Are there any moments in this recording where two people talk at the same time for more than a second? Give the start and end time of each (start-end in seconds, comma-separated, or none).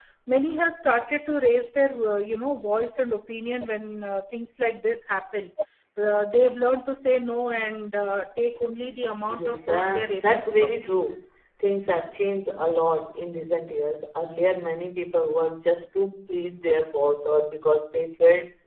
9.3-11.0